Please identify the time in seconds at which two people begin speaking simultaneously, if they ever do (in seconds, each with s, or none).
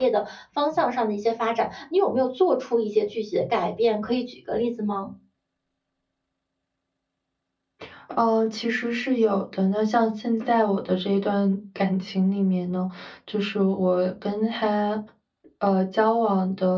none